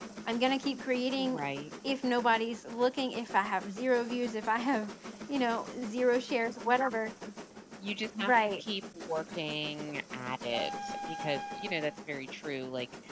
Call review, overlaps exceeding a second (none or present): none